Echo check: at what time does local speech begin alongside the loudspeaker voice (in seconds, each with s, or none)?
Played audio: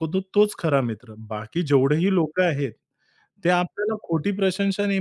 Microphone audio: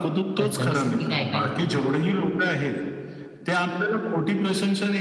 0.4 s